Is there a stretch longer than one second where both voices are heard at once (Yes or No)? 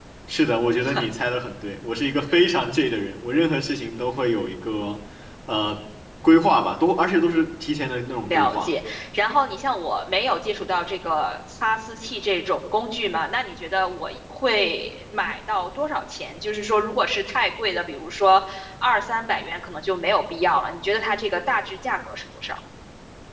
No